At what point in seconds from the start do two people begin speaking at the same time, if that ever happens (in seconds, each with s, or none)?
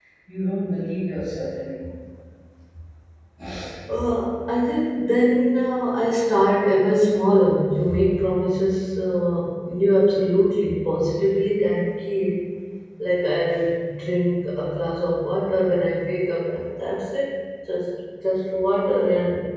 none